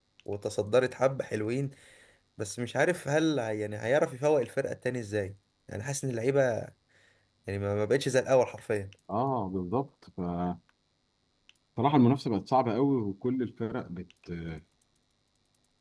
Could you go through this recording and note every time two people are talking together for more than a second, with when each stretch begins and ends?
none

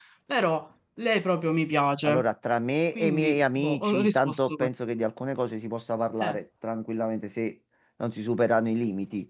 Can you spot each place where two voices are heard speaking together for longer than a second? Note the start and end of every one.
3.0-4.7

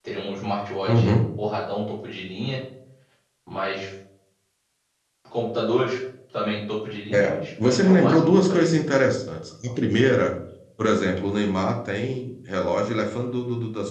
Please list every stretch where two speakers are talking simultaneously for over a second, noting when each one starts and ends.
7.1-8.7

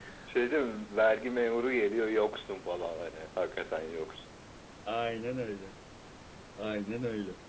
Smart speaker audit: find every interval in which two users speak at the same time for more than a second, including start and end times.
none

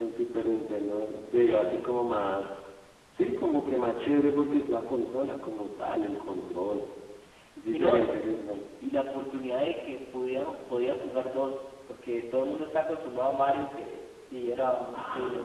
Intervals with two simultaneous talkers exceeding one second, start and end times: none

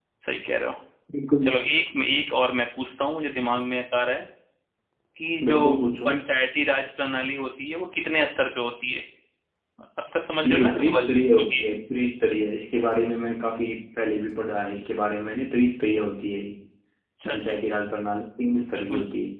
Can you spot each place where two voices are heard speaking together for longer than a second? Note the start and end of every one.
10.4-11.6

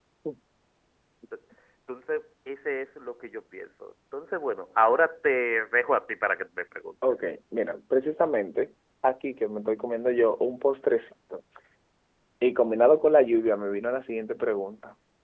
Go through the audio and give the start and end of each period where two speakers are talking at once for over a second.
none

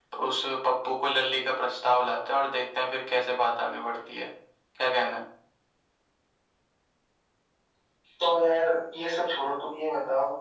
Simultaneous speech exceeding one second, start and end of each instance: none

